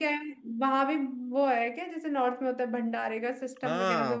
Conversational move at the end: taking over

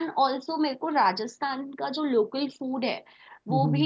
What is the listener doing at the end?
listening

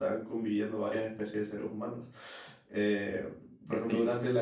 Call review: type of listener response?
listening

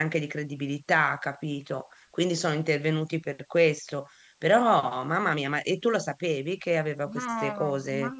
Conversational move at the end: taking over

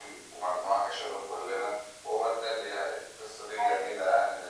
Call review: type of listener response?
listening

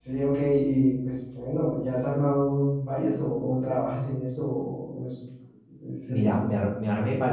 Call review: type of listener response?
taking over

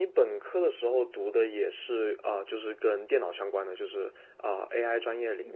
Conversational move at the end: taking over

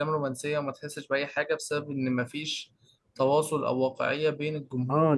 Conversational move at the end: taking over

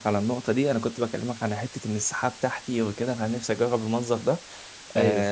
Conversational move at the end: listening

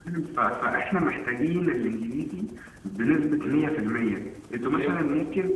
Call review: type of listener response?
listening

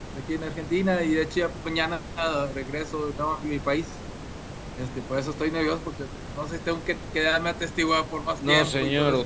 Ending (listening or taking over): taking over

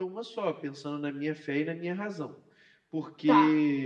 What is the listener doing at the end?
listening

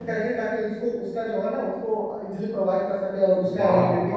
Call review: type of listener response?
taking over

